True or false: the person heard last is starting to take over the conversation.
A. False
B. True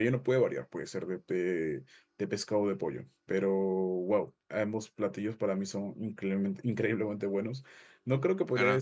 A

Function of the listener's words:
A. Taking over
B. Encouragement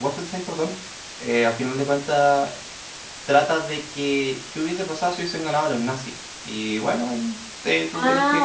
A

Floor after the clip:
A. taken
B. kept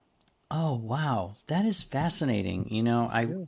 B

